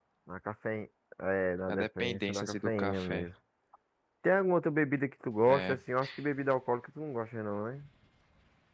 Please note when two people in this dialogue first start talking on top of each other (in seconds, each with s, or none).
1.7 s